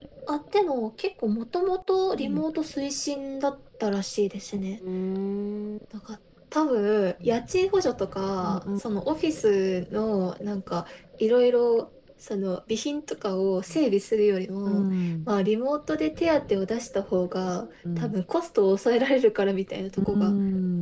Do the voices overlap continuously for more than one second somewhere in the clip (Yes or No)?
No